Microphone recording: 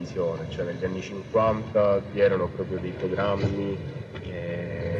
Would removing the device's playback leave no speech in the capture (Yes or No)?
Yes